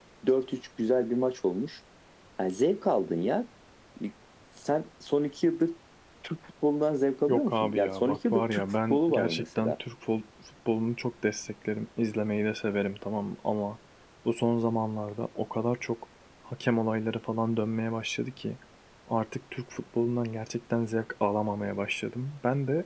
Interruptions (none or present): present